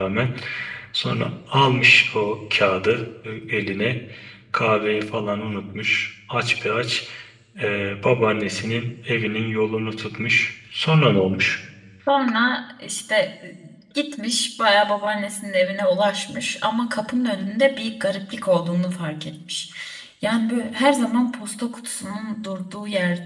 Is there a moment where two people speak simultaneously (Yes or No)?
No